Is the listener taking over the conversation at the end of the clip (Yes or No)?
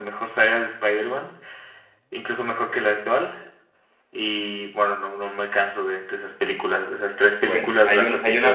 Yes